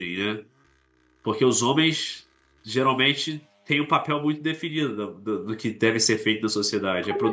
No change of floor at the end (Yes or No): No